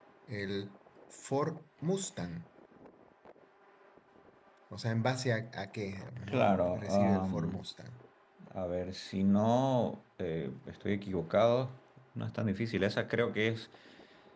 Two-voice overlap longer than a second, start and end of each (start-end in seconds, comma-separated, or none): 6.3-7.6